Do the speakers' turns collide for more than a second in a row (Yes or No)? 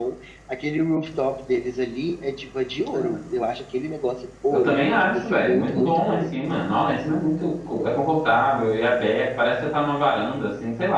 Yes